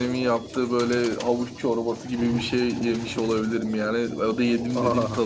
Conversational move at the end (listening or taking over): listening